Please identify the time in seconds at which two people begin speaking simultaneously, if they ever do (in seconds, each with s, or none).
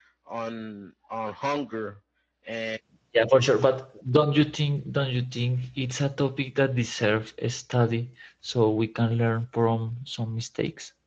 none